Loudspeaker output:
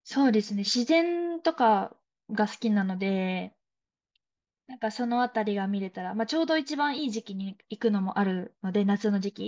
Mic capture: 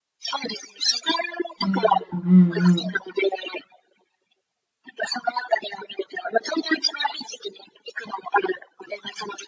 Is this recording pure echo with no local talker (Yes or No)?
No